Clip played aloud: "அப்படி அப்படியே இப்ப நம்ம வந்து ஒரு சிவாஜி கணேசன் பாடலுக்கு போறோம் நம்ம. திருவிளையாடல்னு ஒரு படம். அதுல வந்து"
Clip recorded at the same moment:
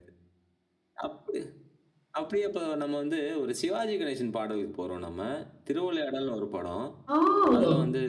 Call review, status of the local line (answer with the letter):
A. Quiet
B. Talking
B